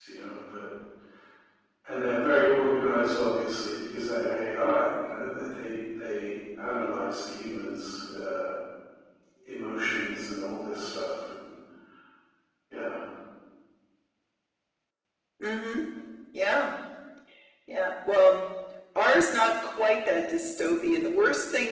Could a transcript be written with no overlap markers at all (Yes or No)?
Yes